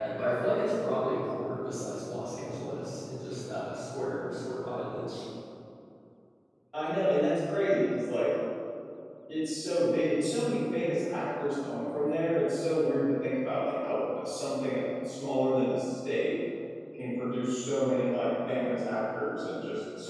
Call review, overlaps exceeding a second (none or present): none